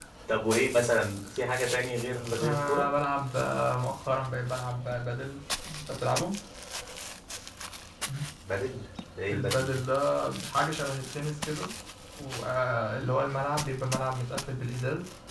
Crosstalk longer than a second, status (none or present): none